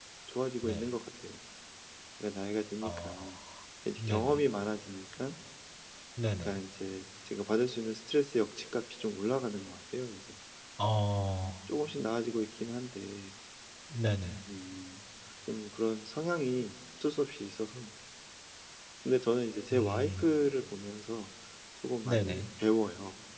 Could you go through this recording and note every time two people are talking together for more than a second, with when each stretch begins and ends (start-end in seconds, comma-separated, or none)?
none